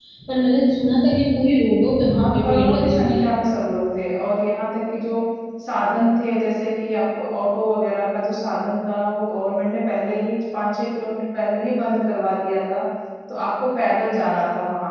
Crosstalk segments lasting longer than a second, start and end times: 2.1-3.3

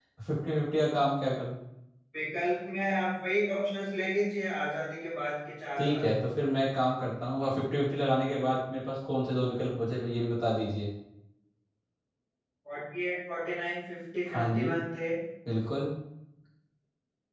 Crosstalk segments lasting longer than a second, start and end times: none

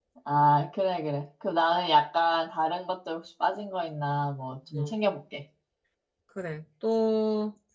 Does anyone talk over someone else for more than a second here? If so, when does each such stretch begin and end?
none

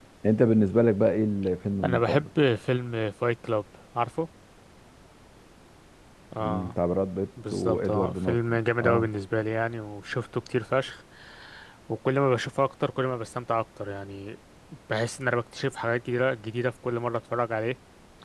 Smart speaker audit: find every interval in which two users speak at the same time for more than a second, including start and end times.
7.5-9.1

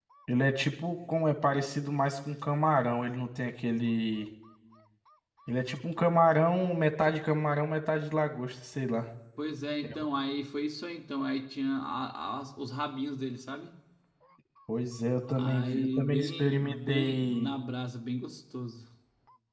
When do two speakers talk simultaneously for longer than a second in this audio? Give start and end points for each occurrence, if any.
15.3-17.5

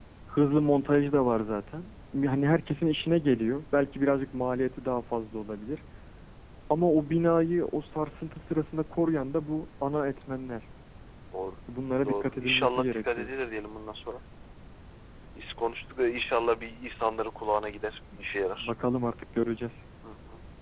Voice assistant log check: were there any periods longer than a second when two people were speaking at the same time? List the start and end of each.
12.0-13.3

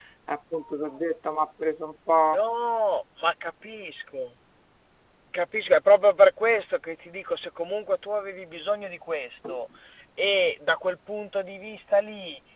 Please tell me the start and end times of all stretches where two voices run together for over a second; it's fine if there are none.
none

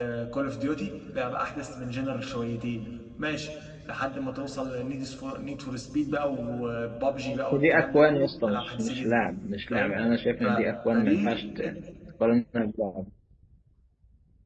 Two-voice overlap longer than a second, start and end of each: 7.3-9.2

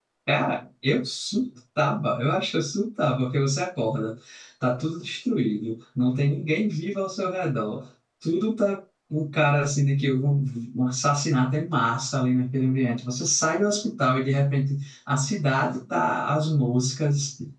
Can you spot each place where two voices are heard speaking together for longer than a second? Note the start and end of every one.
none

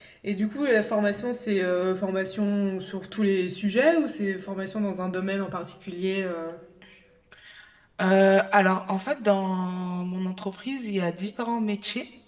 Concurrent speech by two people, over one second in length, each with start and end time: none

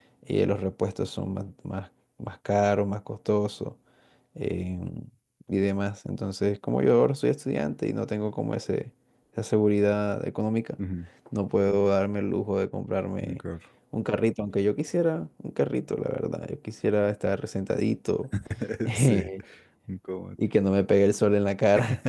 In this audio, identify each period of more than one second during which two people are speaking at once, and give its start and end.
none

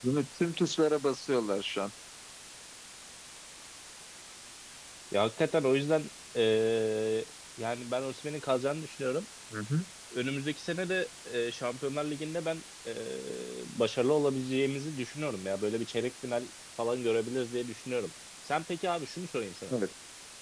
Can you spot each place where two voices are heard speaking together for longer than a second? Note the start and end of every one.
none

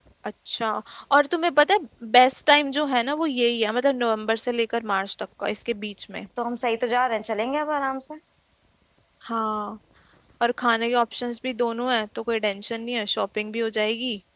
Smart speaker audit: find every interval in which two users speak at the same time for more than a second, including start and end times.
none

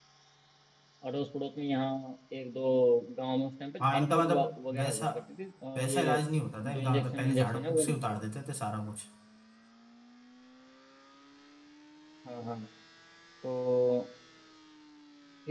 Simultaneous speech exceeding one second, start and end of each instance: 3.8-5.1, 6.6-8.0

